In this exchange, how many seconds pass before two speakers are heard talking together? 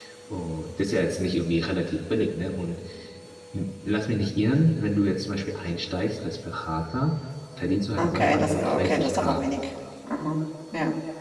8 s

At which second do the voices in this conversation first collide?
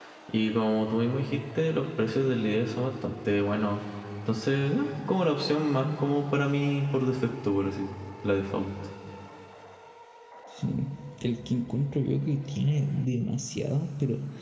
none

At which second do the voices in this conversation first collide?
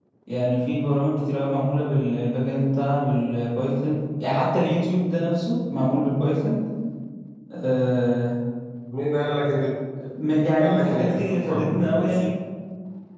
11 s

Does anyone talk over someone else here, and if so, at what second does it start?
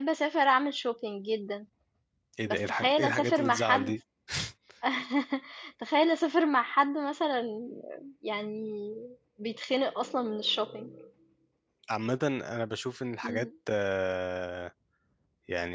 2 s

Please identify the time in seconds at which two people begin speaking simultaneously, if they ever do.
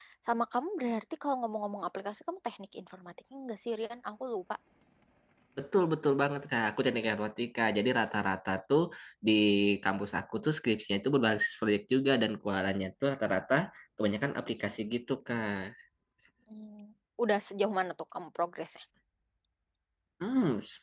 none

